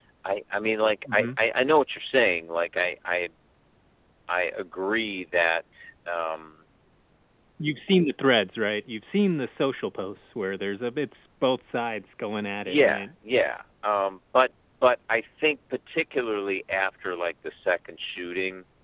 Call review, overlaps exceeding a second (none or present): none